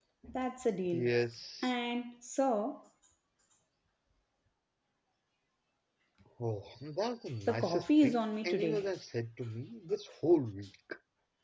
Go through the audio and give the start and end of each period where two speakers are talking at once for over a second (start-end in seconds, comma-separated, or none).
7.5-8.8